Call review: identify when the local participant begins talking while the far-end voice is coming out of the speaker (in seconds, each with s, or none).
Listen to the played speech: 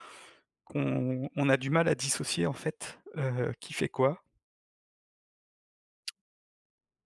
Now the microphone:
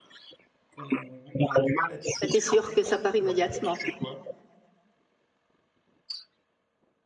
2.2 s